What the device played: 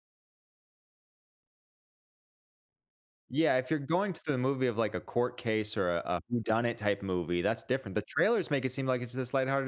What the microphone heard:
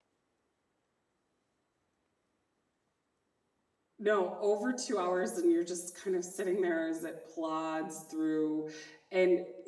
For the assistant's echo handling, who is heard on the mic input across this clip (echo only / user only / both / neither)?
user only